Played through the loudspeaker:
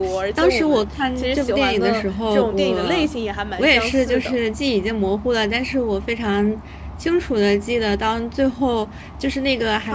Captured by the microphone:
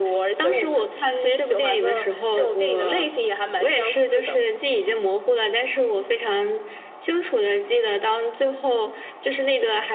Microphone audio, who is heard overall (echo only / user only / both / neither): echo only